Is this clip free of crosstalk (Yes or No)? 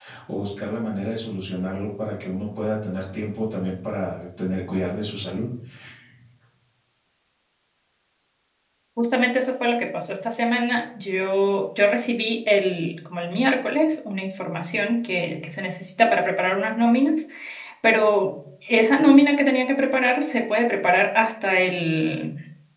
Yes